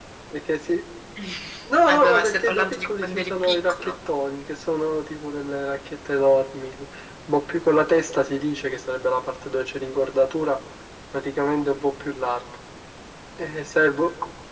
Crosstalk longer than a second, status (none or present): present